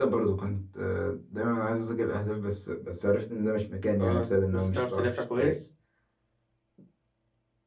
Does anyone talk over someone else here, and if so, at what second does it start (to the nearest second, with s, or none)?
4 s